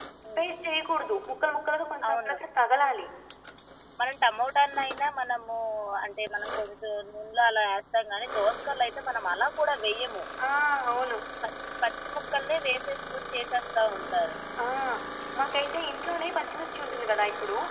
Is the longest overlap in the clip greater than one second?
No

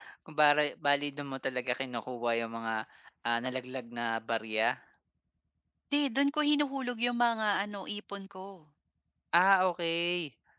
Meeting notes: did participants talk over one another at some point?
No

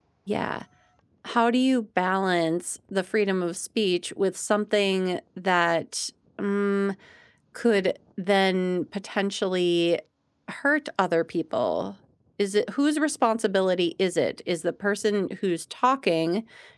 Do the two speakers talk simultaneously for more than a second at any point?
No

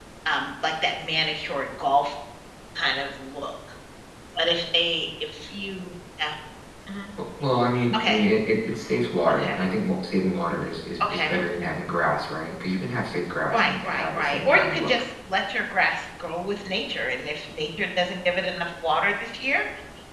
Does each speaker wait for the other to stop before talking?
No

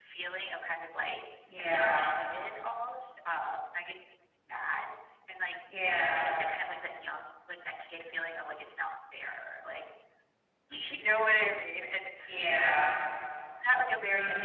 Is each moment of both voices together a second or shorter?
Yes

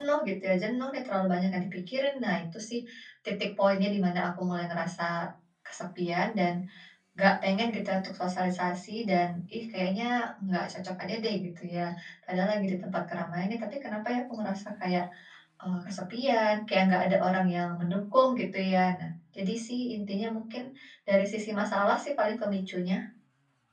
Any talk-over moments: No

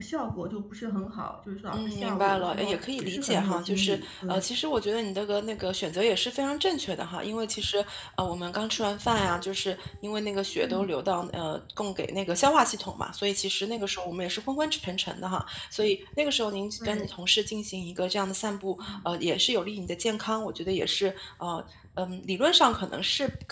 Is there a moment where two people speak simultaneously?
Yes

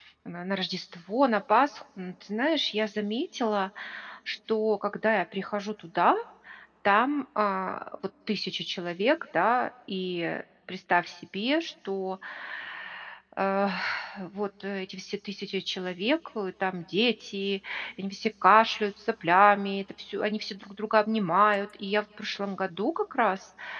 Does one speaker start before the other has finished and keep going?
No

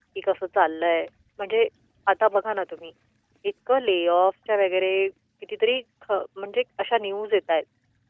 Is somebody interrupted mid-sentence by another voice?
No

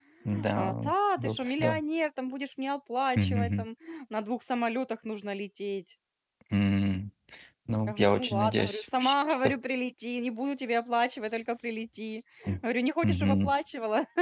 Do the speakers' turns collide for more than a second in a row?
Yes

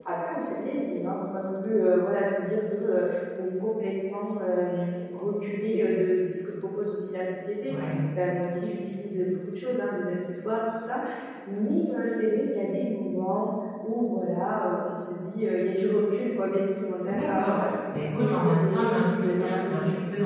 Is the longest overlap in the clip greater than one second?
Yes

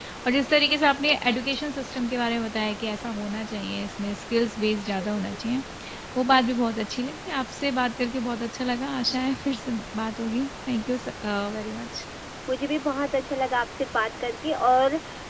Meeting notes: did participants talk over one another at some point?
No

